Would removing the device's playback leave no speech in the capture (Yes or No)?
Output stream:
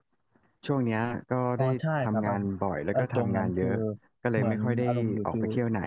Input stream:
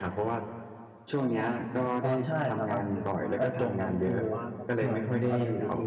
No